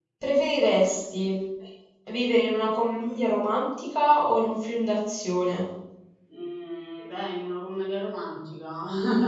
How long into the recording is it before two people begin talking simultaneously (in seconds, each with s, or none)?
none